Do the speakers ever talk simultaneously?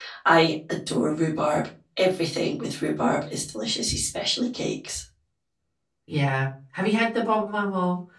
No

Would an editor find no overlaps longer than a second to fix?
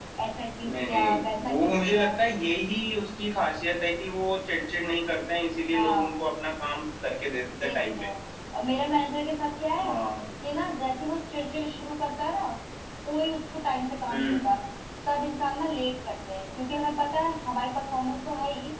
No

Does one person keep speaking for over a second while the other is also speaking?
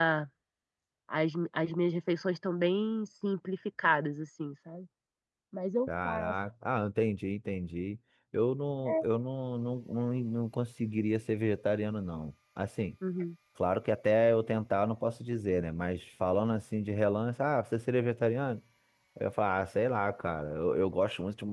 No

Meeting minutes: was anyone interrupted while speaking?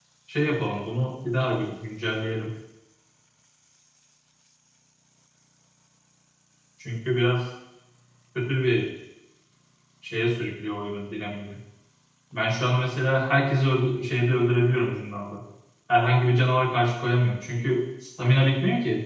No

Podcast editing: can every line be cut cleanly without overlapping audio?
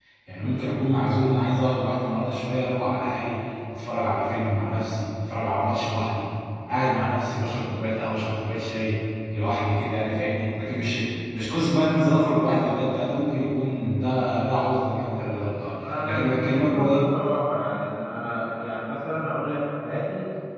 No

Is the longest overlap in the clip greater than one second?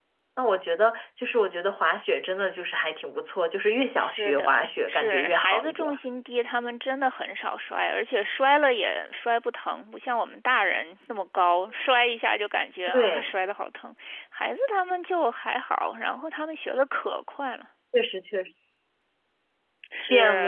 Yes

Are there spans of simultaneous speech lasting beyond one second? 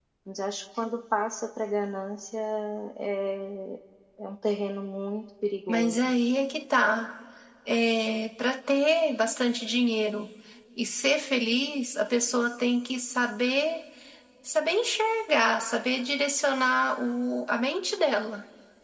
No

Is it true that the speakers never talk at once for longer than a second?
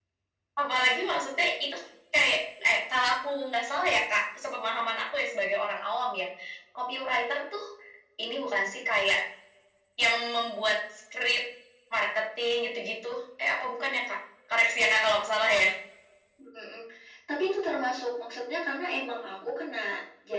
Yes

